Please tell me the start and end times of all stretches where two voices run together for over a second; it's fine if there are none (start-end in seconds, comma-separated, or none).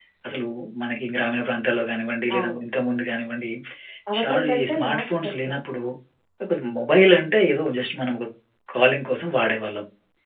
4.2-5.5